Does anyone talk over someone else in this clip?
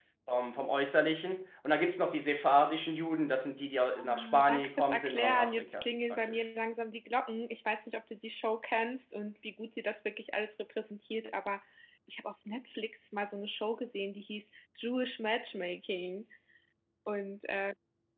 Yes, from 4.0 s

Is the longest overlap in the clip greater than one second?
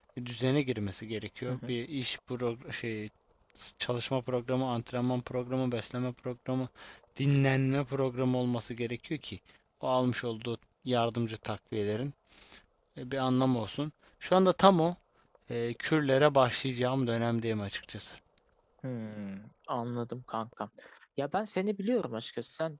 No

